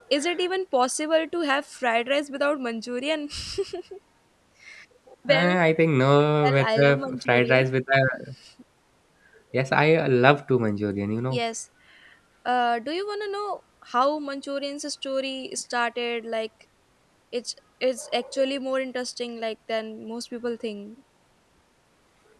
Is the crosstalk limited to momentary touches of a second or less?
No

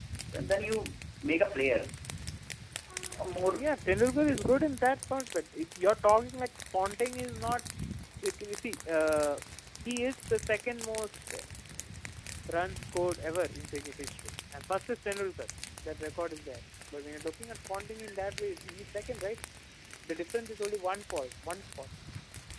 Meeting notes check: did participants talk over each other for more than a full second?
No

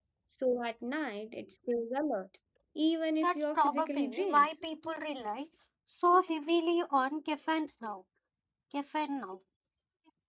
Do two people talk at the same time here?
Yes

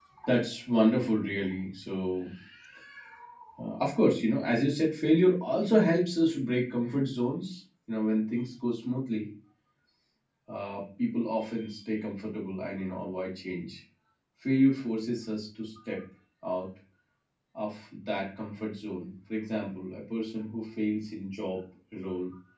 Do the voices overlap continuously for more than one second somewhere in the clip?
No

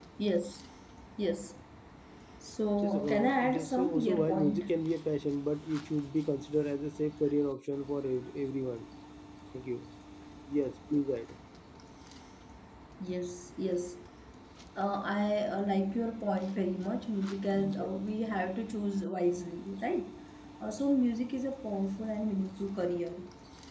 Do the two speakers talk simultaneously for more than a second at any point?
Yes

